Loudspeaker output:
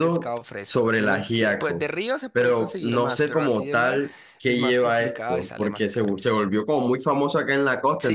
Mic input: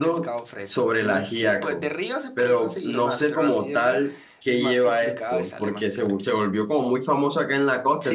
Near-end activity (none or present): none